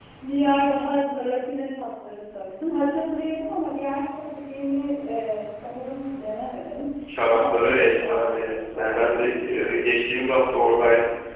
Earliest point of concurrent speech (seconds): 7.1 s

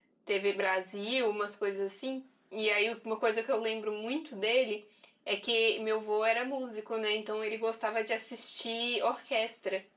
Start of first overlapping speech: none

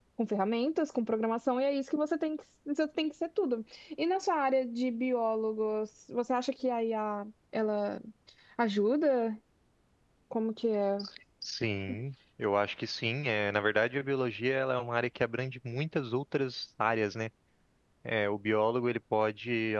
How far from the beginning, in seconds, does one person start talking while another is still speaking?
none

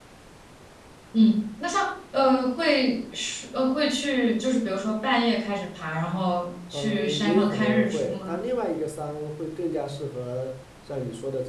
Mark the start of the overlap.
6.7 s

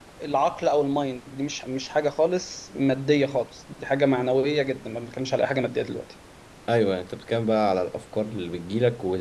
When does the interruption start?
none

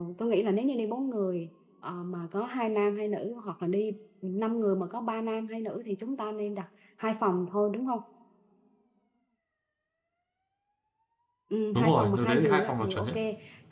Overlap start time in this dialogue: 11.7 s

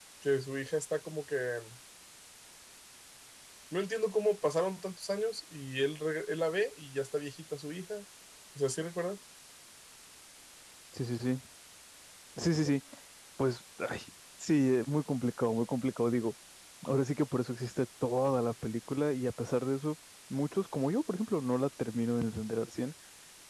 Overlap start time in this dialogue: none

